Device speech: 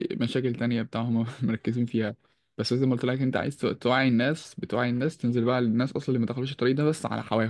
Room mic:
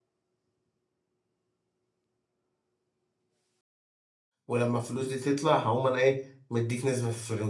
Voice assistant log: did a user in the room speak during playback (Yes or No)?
Yes